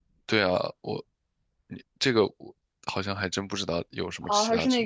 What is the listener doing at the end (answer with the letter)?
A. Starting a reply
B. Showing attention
A